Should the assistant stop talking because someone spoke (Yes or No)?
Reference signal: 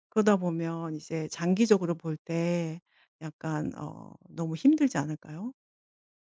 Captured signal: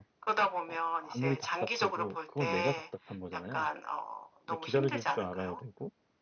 Yes